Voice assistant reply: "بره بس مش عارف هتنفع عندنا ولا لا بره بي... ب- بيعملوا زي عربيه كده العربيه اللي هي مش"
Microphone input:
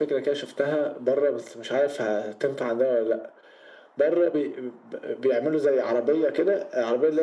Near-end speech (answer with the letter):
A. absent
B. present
A